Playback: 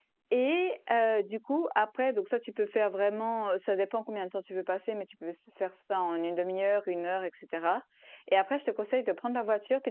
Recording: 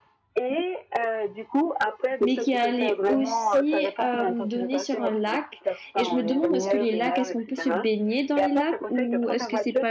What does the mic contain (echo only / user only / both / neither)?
both